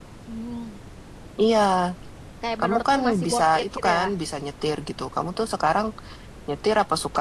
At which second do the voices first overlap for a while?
2.6 s

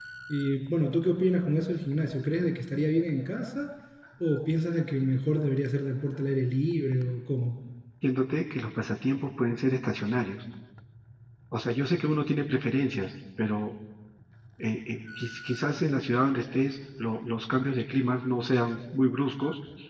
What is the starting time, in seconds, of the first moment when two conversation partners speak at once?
none

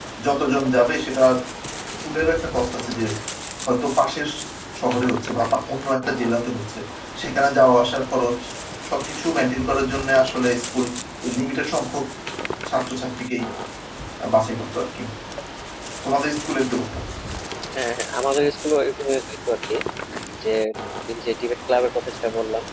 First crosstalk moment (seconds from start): none

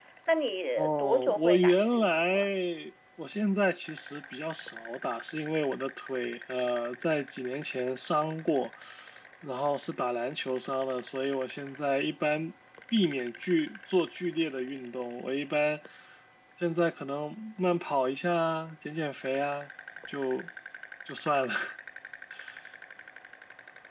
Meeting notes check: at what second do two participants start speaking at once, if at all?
0.8 s

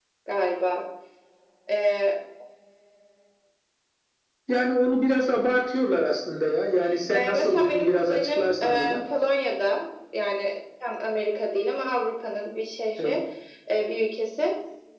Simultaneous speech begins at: 7.1 s

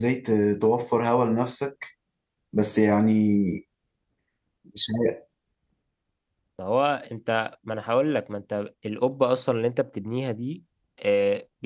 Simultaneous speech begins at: none

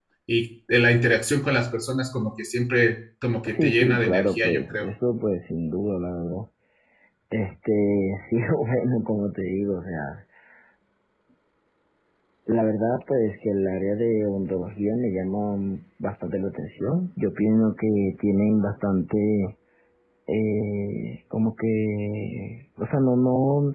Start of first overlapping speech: 3.5 s

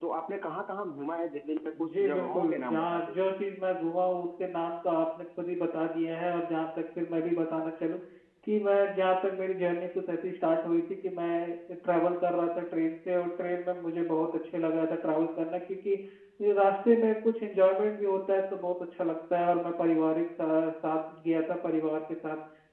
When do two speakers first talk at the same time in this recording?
1.7 s

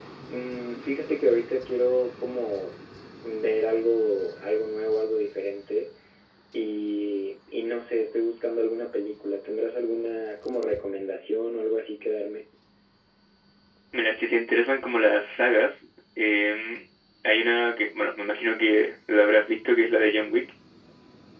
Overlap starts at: none

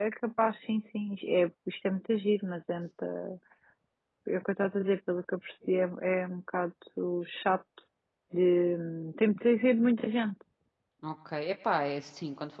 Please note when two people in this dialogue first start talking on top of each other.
none

